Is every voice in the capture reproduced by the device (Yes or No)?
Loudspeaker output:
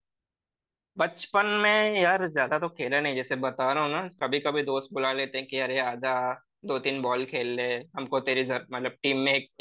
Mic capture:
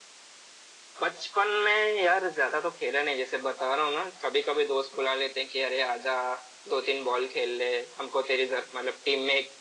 Yes